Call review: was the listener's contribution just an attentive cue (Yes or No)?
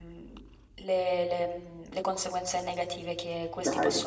Yes